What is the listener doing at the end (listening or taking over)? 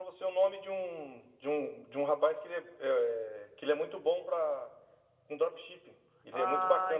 taking over